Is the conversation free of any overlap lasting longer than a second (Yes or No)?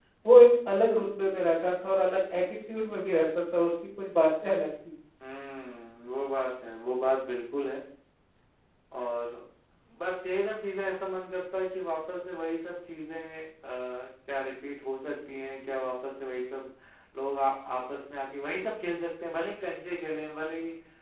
Yes